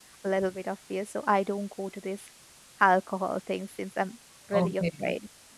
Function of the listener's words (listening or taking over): taking over